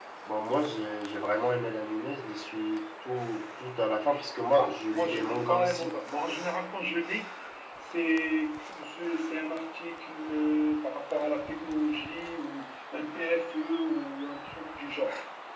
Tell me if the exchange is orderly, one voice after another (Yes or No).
No